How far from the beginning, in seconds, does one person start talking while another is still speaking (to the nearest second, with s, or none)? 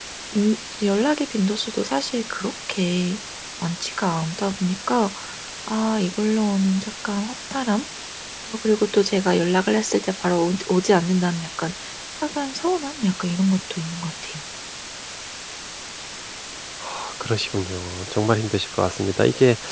none